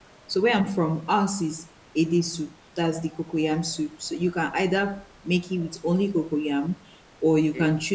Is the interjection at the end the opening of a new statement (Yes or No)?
No